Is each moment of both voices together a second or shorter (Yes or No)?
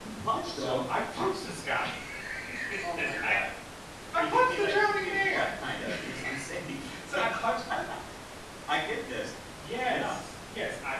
No